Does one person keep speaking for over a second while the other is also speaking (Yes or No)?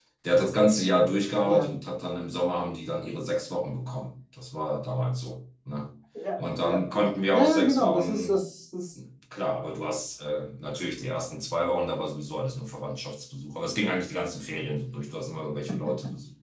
Yes